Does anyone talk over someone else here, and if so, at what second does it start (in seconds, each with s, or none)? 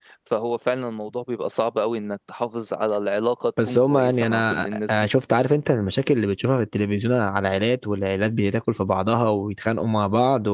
3.6 s